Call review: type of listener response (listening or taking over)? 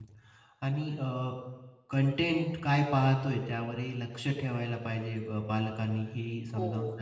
listening